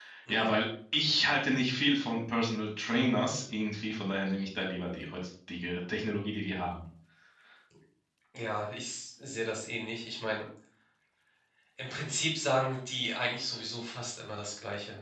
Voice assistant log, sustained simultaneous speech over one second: none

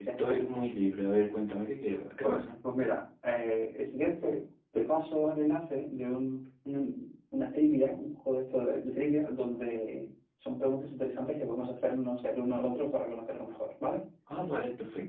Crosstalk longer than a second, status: none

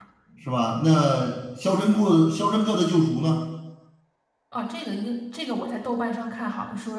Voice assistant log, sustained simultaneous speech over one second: none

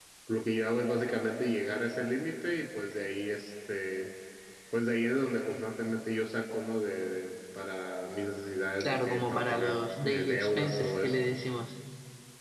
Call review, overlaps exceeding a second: present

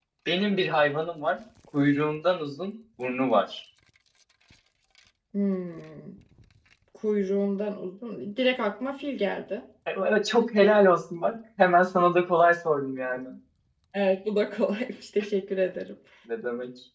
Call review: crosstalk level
none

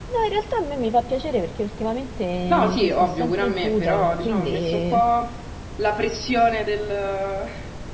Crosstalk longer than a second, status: present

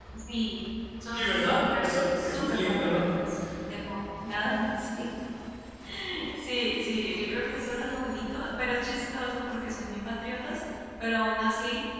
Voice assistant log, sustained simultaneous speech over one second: present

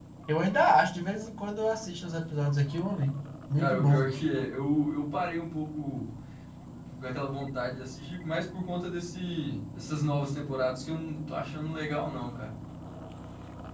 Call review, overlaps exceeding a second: none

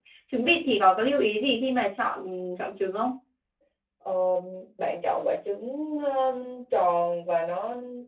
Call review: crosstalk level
none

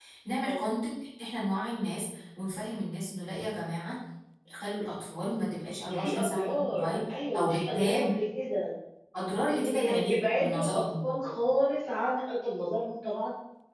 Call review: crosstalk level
present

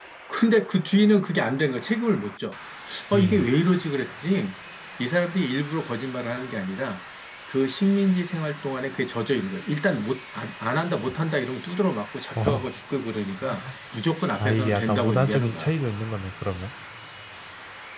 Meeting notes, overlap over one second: present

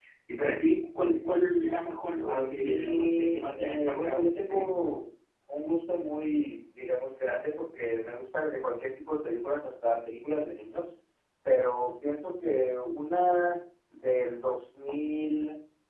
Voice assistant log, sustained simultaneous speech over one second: present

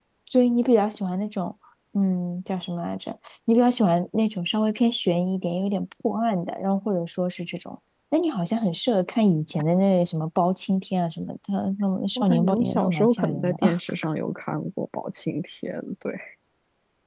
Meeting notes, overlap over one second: present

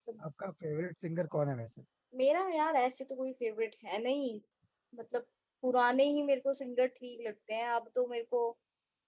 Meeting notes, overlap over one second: none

